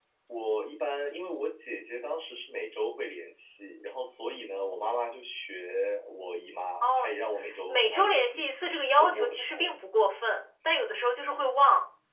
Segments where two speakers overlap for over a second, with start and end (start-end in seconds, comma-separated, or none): 7.7-9.7